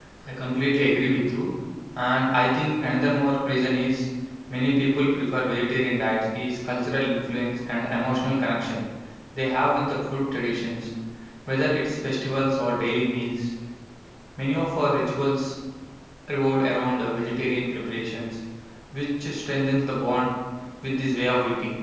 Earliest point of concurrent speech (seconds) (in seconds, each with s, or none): none